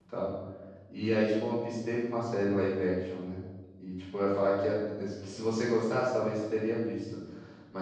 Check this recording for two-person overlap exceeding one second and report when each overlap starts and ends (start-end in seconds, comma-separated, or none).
none